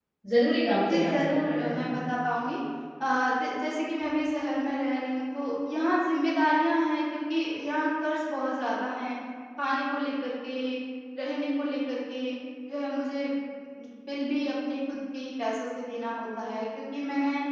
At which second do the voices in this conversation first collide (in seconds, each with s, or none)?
0.9 s